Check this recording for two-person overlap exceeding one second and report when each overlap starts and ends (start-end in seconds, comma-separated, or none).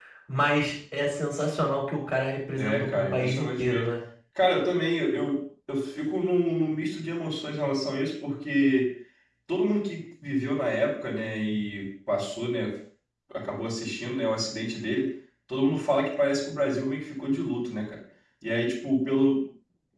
2.6-3.9